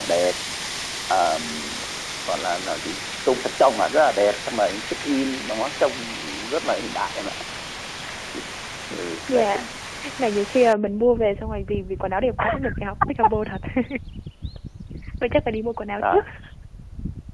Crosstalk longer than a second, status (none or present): none